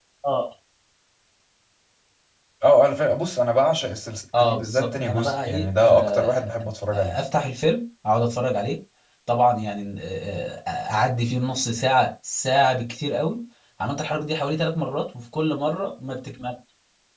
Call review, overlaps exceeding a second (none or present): present